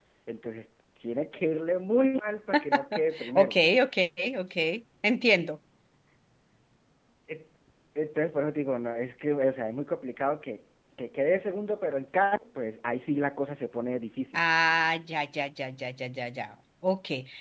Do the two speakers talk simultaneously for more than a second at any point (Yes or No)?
No